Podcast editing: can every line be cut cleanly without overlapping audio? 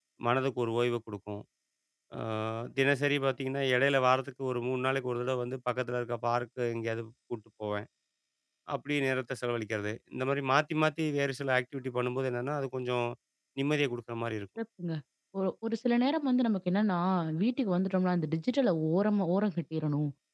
Yes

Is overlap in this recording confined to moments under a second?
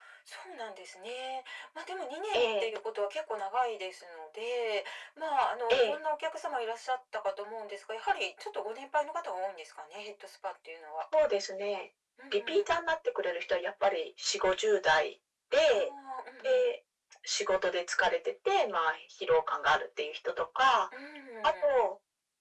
Yes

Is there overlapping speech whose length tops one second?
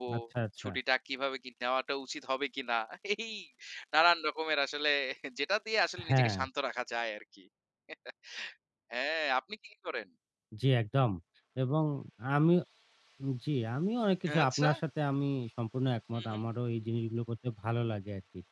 No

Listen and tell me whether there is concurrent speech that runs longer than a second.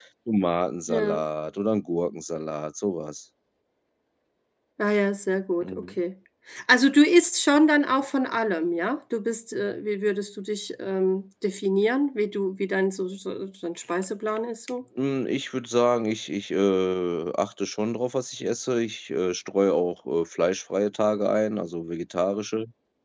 No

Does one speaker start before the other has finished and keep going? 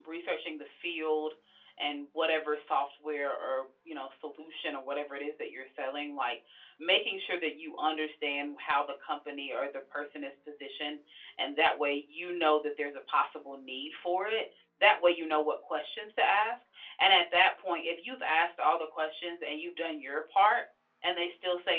No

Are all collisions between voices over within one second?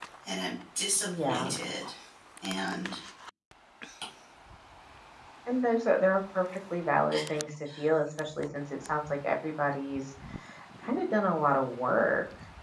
Yes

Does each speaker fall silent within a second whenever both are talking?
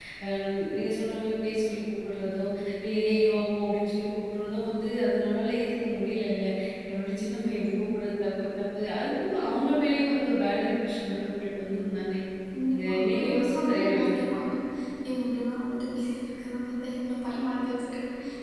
No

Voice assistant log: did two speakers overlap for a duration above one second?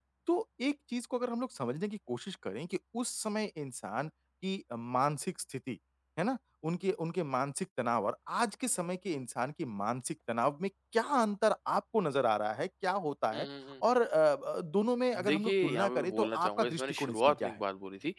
Yes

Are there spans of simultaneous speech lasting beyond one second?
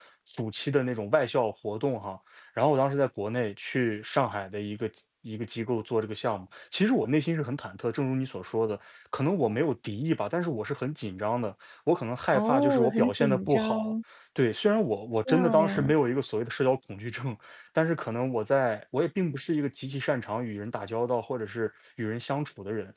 Yes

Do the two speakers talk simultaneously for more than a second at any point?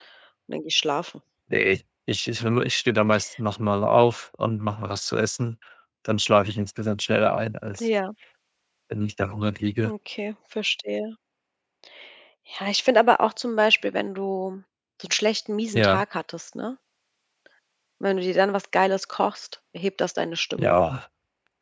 No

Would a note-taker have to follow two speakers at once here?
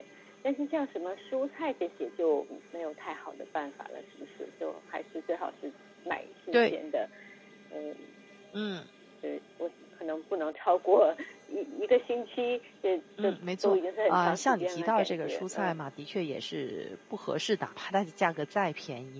Yes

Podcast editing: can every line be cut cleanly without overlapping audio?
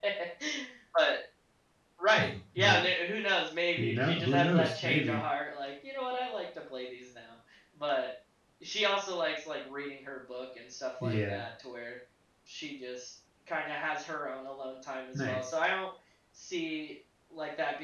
No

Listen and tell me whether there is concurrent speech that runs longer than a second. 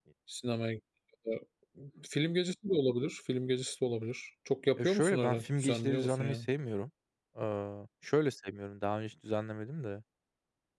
Yes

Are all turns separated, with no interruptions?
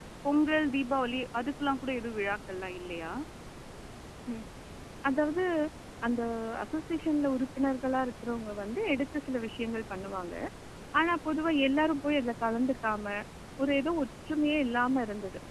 Yes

